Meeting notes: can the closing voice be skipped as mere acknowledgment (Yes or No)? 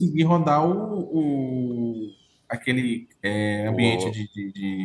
Yes